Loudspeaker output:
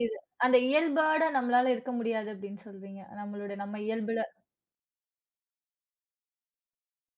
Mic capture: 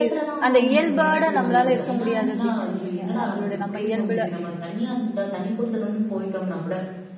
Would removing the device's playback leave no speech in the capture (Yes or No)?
No